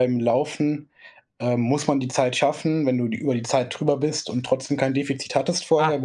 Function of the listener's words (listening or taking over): taking over